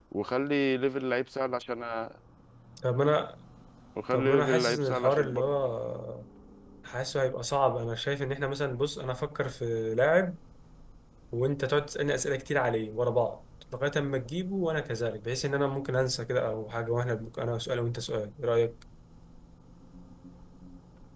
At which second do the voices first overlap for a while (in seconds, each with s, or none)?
4.1 s